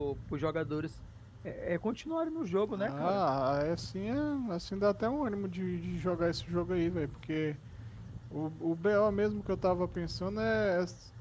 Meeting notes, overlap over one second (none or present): none